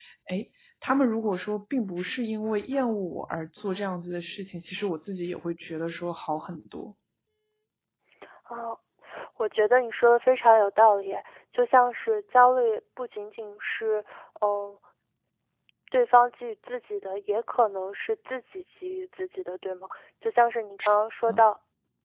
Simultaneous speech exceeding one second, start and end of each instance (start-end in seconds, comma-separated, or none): none